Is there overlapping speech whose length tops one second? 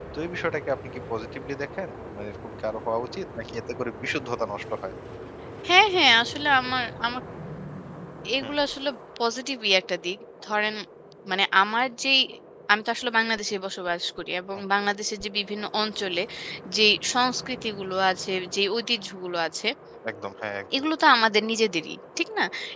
No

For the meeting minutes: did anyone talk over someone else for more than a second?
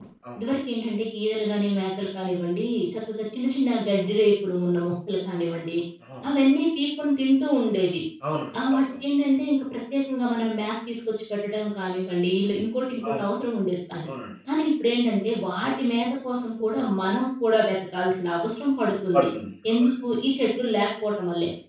No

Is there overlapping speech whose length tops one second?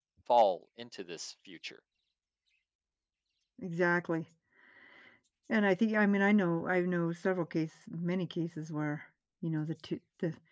No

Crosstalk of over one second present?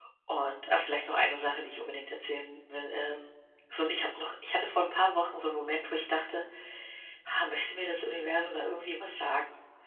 No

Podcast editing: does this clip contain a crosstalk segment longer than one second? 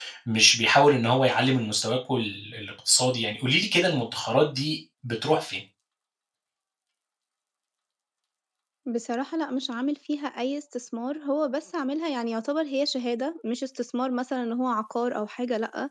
No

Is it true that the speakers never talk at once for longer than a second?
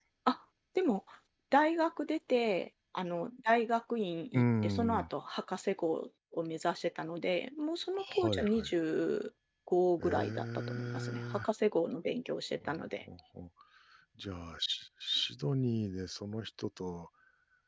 No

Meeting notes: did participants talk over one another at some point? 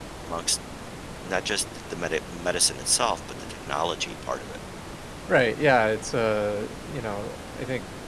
No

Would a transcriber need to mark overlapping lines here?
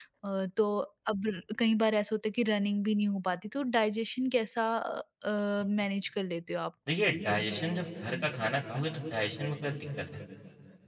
No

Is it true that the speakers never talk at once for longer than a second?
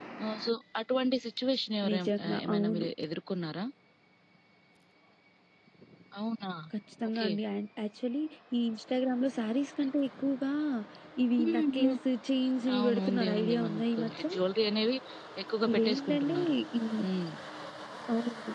No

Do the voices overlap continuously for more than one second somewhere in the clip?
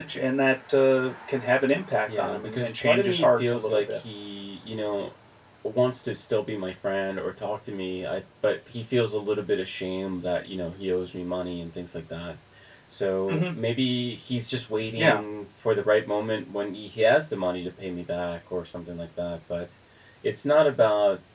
Yes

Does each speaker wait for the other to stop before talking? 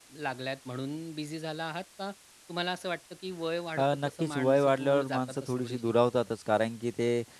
No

